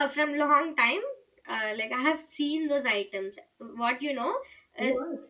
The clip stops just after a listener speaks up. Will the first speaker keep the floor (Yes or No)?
Yes